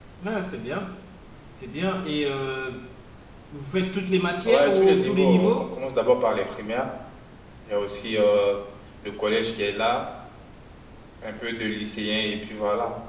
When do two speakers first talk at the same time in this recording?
4 s

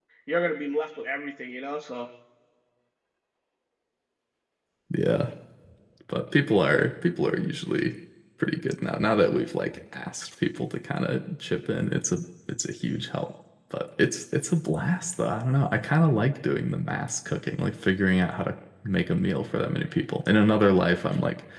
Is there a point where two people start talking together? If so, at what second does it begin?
none

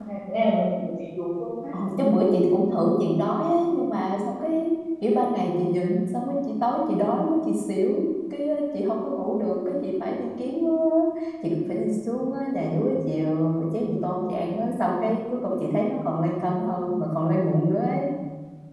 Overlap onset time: none

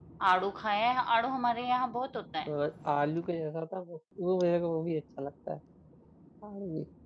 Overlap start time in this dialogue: none

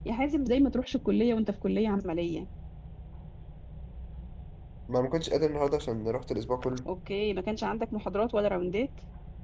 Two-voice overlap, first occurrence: none

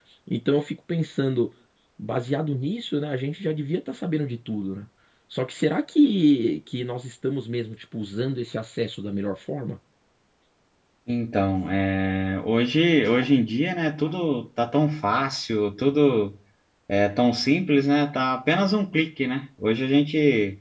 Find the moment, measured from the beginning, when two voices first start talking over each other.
none

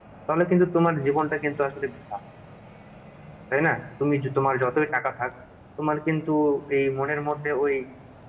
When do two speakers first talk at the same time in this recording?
none

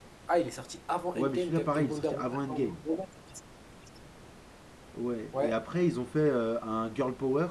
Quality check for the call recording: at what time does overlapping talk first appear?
1 s

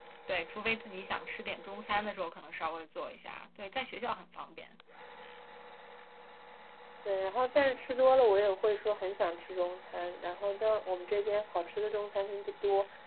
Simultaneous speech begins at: none

